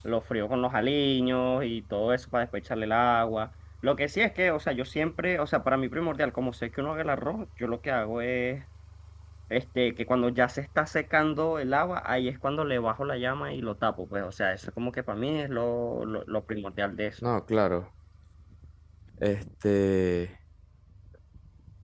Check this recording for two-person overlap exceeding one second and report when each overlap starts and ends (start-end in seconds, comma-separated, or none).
none